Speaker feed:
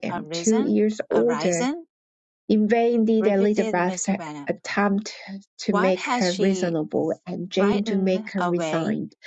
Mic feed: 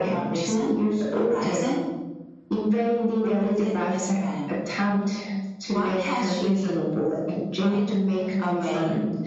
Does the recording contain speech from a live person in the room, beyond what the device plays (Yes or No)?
No